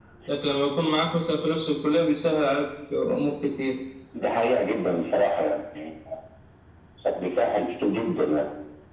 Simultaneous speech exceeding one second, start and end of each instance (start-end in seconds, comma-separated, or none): none